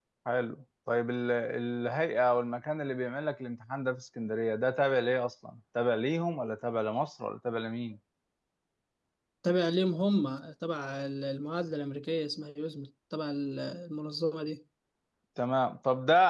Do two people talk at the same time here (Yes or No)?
No